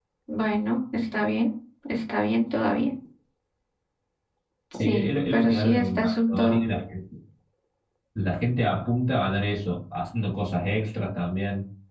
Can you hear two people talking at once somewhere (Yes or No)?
Yes